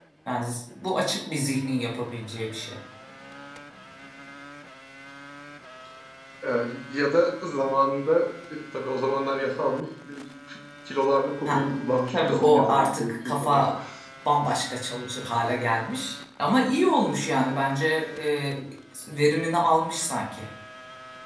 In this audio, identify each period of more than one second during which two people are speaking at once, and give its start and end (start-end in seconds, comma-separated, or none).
12.1-13.6